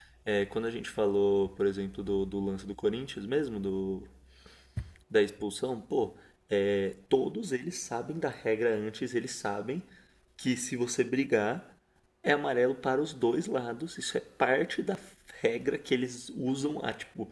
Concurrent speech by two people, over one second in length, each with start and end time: none

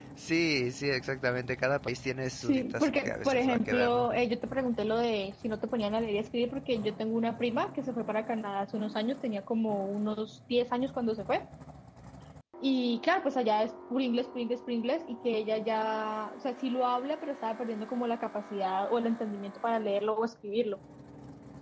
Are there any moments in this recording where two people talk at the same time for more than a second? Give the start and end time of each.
2.4-4.0

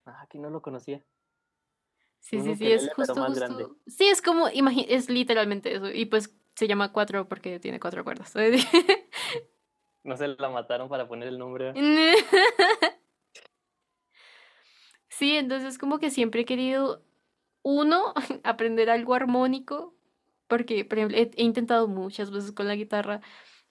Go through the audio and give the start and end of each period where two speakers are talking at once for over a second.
2.3-3.7

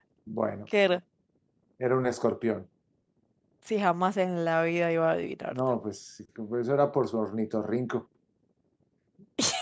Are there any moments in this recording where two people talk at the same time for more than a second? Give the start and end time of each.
none

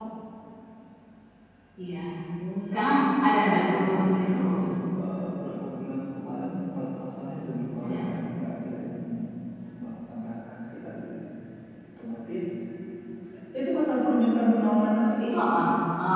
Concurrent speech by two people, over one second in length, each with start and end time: 2.7-4.5

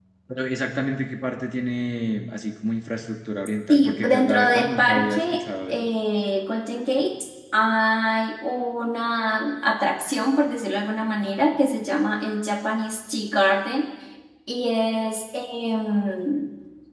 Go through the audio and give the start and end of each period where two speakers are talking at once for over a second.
3.7-5.8

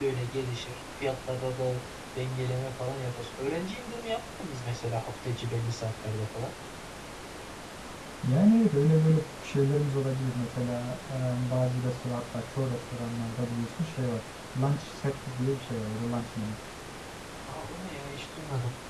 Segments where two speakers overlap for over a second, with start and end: none

